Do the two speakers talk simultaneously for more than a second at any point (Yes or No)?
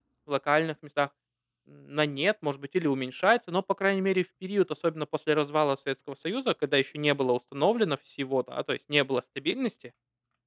No